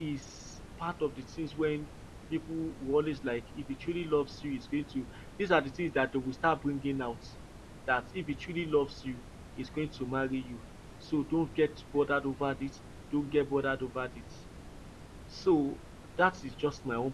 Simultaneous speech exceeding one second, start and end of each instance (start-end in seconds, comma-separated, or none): none